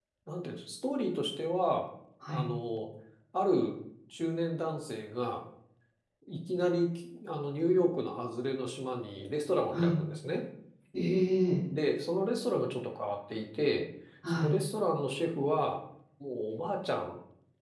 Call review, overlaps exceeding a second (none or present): none